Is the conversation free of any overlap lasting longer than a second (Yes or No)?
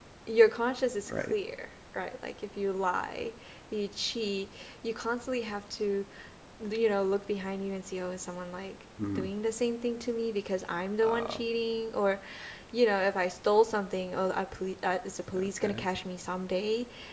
Yes